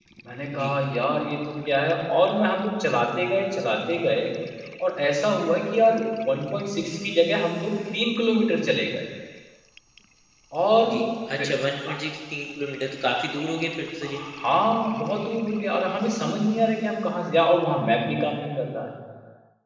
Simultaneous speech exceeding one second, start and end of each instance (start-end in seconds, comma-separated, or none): none